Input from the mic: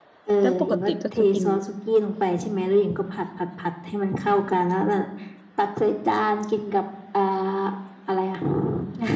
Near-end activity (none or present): present